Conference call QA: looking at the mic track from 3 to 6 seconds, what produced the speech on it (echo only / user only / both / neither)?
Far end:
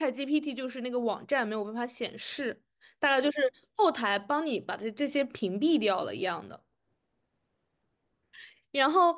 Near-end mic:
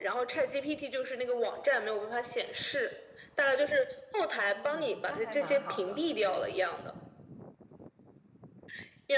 both